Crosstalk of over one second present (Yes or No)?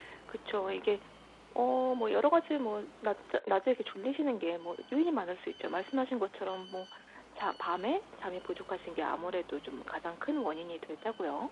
No